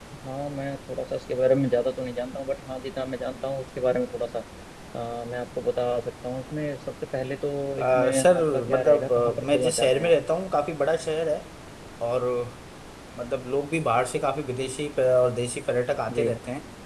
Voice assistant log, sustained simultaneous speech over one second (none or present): present